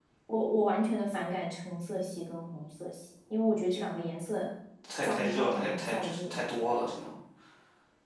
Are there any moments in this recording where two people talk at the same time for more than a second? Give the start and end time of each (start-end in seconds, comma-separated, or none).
5.0-6.3